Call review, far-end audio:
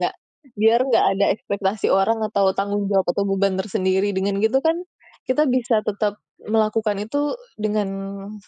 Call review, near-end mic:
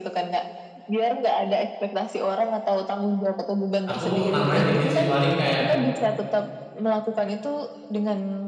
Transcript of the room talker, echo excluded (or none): Aku nambahin dikit sih, paling kayak